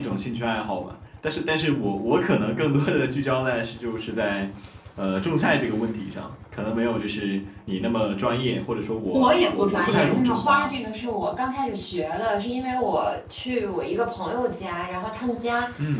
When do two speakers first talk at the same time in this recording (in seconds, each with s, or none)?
9.1 s